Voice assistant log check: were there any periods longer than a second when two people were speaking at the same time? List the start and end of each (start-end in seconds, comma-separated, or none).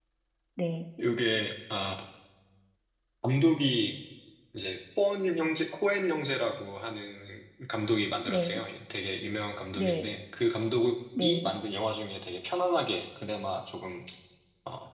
none